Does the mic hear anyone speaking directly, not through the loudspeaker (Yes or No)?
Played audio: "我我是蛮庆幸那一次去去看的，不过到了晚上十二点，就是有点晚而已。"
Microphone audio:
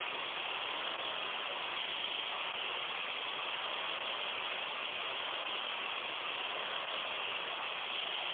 No